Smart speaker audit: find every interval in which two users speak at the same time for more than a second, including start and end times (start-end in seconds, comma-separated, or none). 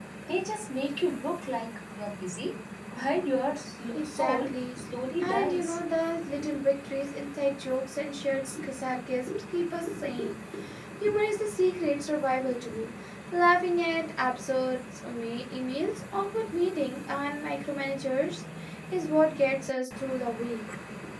3.9-5.8